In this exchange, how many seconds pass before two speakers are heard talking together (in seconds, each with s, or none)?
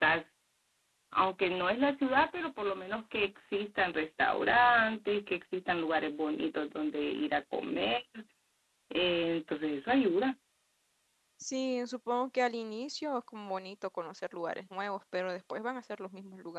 none